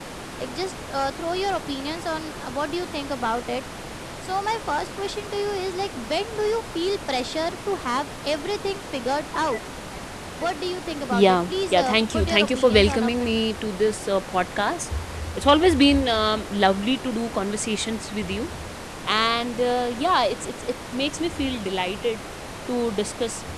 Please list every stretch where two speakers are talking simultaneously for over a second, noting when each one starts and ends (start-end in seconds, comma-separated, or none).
11.1-13.3